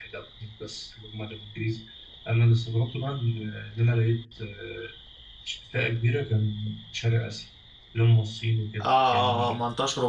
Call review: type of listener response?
taking over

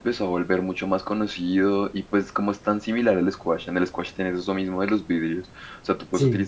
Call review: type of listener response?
listening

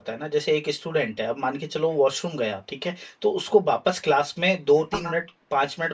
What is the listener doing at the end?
listening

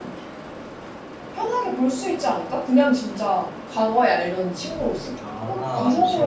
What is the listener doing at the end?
taking over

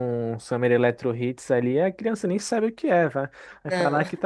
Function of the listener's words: listening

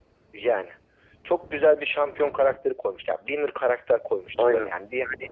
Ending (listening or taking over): listening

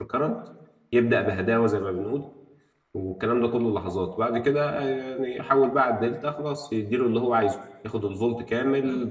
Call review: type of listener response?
listening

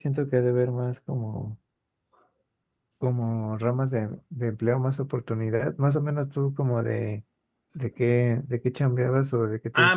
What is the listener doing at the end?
taking over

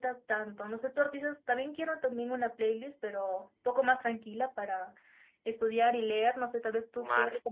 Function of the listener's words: taking over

